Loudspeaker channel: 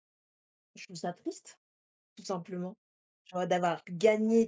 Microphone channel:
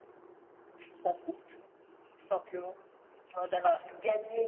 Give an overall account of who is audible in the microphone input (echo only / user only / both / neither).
echo only